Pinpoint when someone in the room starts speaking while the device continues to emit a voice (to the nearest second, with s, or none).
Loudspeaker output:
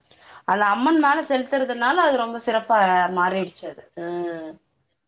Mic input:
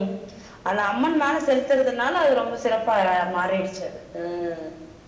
none